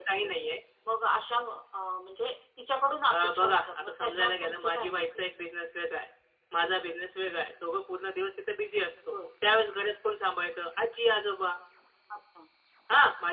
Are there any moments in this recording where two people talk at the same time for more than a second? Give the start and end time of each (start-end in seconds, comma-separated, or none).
3.1-5.2